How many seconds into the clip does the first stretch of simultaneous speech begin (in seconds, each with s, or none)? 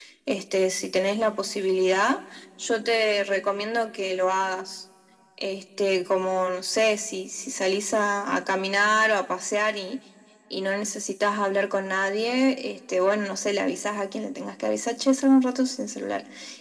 none